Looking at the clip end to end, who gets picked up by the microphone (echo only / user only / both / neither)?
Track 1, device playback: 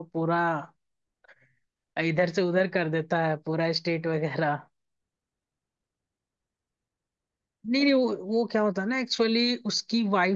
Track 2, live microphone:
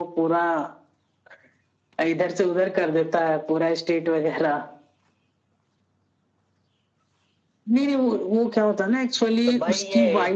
both